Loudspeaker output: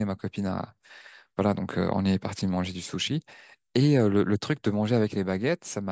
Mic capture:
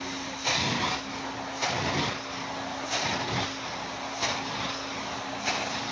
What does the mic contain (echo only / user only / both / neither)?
neither